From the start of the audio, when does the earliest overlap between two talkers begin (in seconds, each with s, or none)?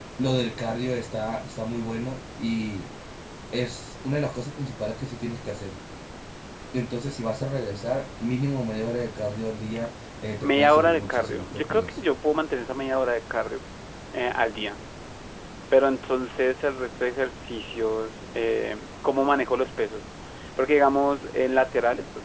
10.4 s